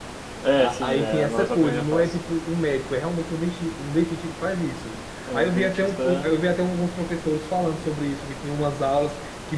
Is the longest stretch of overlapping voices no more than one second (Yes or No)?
No